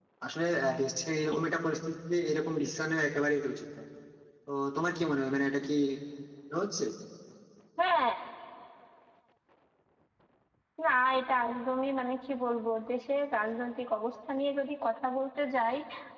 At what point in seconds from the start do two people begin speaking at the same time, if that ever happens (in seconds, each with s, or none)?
none